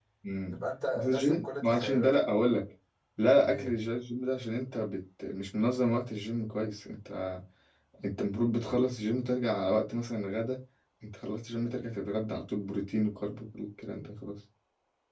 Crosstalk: present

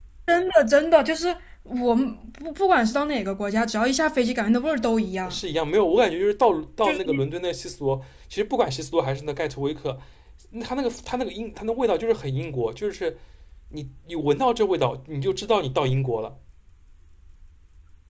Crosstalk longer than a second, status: none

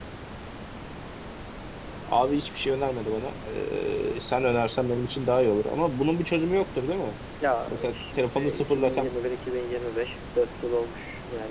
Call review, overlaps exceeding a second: present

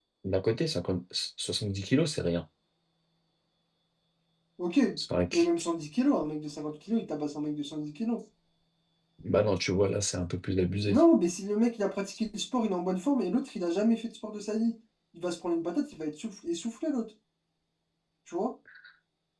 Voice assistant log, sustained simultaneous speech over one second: none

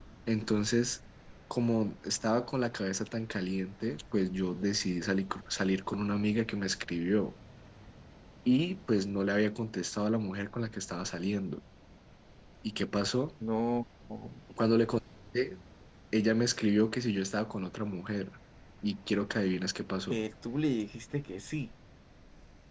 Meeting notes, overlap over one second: none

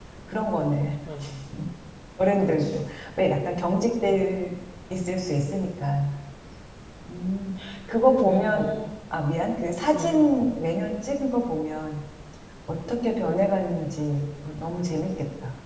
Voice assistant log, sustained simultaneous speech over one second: none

